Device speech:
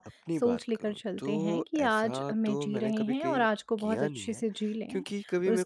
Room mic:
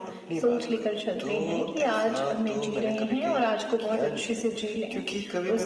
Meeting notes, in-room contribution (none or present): none